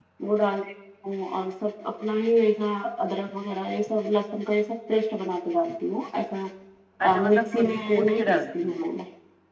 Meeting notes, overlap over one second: present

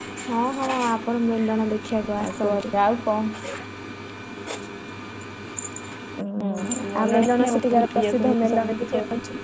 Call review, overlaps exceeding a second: present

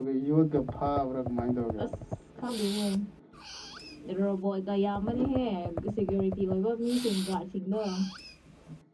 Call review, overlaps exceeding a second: none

